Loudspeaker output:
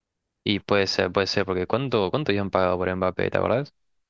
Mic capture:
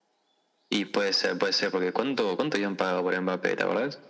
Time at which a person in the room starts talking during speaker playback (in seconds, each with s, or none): none